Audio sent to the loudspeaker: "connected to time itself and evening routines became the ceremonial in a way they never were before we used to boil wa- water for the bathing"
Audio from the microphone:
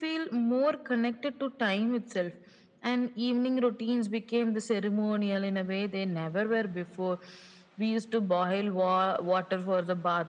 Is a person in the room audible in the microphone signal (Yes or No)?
No